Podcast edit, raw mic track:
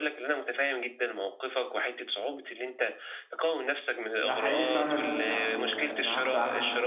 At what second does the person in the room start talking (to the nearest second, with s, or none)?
4 s